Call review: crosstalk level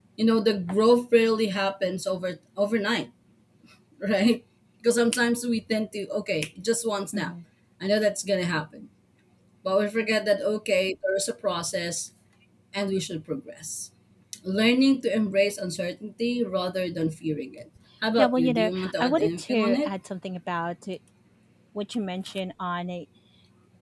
present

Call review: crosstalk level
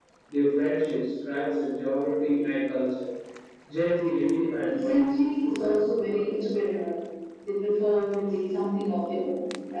present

